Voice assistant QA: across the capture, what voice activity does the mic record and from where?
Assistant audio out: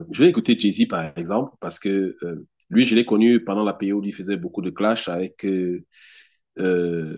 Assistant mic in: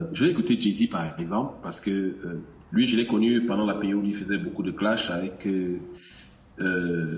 echo only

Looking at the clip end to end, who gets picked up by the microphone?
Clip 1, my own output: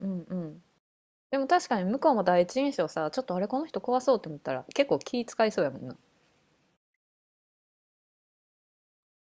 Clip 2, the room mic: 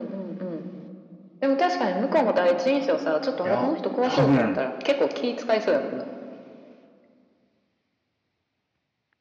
both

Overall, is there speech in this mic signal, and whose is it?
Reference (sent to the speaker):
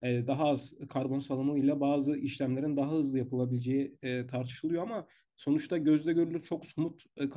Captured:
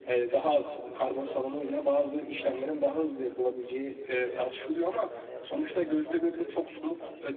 both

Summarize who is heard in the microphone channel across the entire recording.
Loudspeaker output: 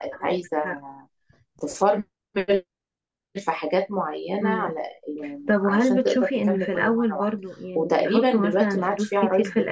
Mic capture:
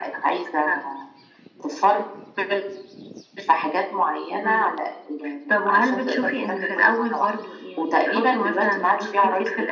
echo only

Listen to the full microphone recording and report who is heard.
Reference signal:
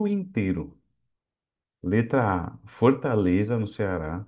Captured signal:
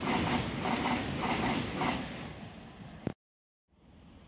neither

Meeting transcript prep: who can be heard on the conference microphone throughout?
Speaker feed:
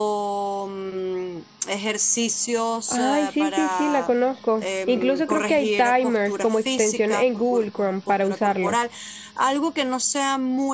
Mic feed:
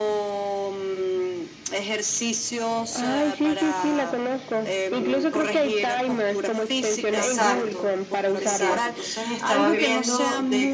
both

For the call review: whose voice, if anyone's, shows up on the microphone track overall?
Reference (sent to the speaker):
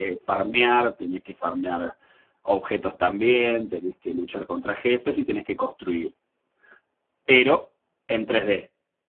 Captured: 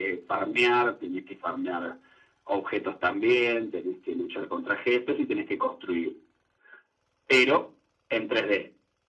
echo only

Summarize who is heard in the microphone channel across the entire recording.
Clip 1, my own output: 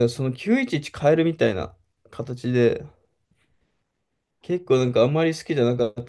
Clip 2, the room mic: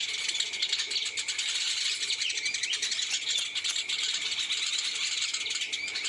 neither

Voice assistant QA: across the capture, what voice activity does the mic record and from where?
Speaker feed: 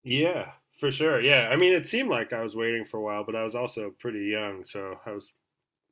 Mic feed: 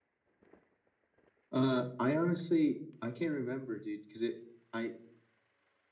user only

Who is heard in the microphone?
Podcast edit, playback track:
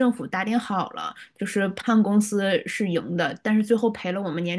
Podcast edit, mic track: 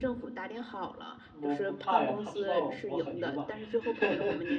both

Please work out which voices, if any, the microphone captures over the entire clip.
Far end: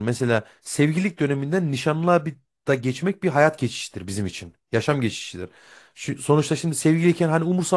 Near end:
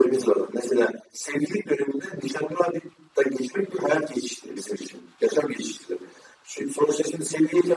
echo only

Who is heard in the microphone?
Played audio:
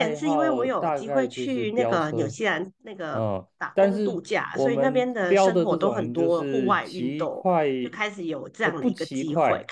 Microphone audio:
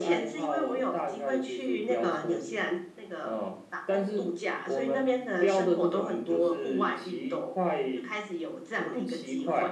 echo only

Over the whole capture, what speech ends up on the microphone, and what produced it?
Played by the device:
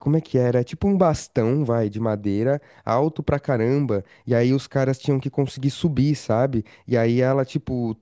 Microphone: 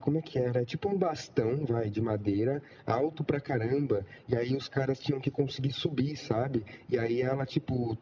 echo only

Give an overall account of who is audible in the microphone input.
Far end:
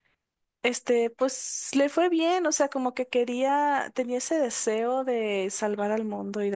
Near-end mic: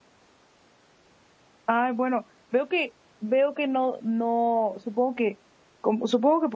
user only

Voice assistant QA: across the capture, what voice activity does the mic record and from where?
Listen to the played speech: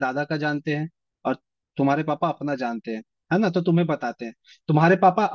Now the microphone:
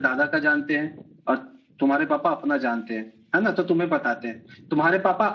echo only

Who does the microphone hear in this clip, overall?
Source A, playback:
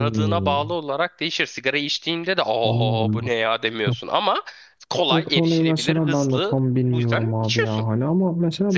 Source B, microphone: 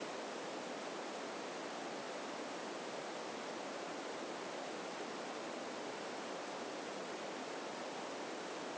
neither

